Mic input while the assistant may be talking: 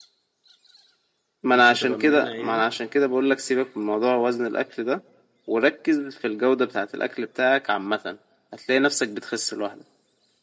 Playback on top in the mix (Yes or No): Yes